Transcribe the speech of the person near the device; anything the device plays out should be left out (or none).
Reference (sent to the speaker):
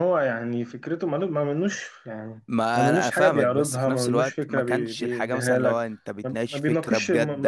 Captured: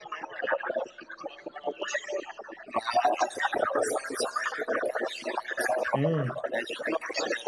امم